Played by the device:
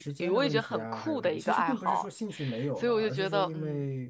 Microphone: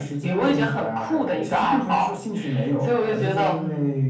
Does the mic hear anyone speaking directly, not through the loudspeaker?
No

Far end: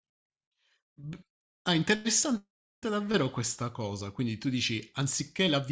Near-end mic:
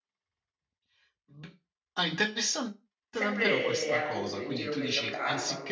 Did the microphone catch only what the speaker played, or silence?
No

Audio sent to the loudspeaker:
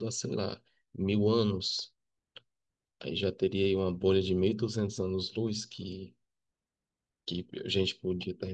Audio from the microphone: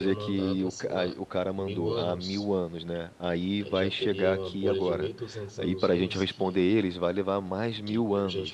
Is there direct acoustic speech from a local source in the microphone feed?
Yes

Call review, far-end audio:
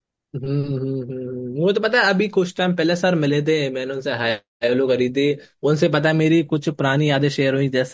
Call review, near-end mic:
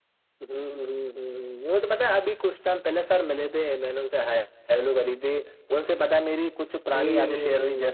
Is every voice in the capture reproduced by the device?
No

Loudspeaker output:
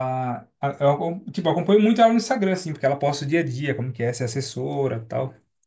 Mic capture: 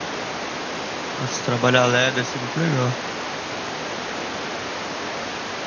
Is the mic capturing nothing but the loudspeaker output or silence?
No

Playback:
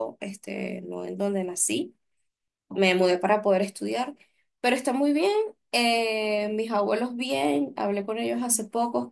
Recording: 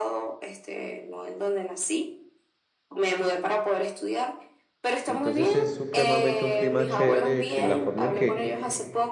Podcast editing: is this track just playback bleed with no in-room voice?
No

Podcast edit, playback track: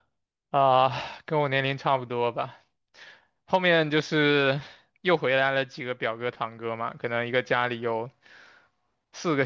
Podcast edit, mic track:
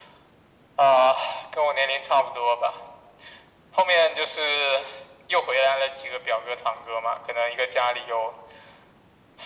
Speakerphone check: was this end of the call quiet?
Yes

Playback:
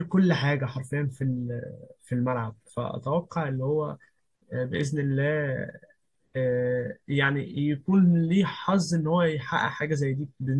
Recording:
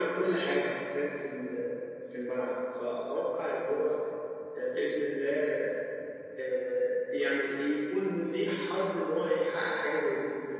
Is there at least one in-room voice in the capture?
No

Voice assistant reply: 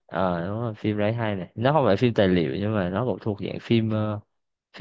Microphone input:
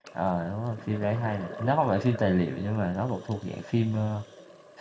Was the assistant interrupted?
No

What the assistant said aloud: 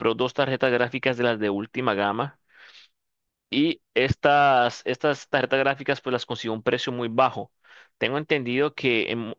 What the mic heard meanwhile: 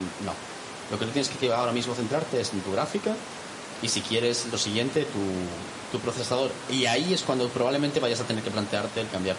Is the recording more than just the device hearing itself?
Yes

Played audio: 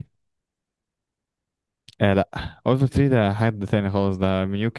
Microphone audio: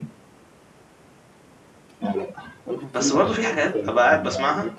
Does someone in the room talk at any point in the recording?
Yes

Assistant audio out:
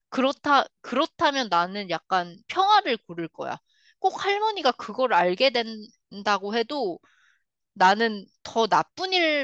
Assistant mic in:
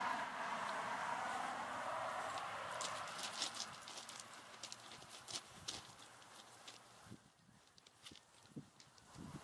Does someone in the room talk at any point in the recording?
No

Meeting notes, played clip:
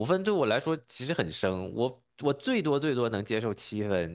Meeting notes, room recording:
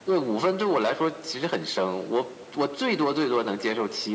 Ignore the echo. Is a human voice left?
No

